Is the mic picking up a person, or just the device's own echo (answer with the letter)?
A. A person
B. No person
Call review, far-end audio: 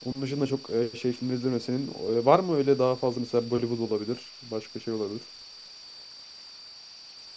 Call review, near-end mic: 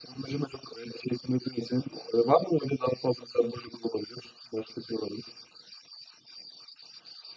B